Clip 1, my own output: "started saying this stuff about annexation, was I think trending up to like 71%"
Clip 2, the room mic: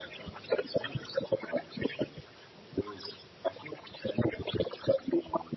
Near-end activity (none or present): none